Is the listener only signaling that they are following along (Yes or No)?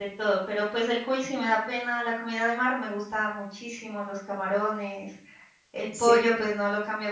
Yes